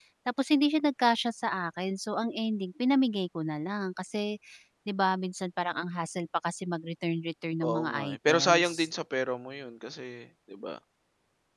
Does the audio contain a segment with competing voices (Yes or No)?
Yes